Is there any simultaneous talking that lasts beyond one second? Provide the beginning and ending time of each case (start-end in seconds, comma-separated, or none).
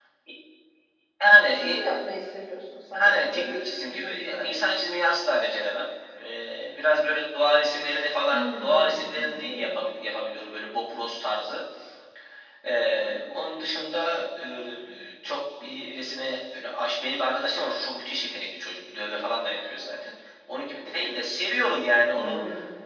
3.0-4.6, 8.3-9.8